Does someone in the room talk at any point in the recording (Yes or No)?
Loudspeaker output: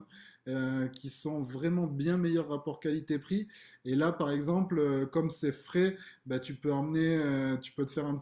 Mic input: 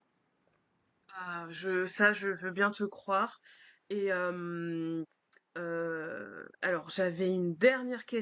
Yes